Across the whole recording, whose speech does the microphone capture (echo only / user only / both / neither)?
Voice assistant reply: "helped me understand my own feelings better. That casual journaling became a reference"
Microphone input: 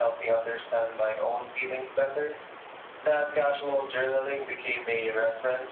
echo only